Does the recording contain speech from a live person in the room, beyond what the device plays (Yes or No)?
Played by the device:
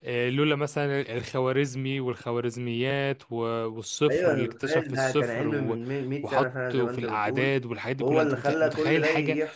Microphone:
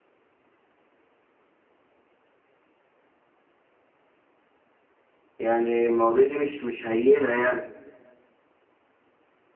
Yes